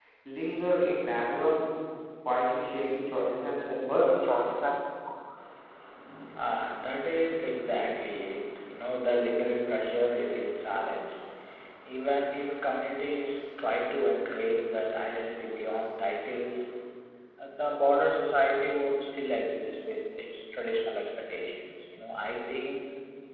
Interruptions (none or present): none